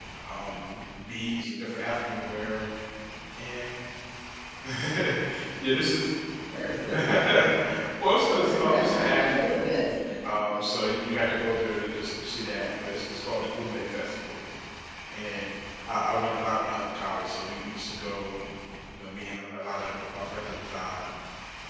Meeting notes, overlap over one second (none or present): present